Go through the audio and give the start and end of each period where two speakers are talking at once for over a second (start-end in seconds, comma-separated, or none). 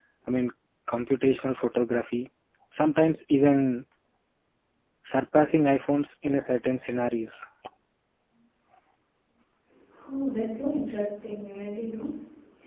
none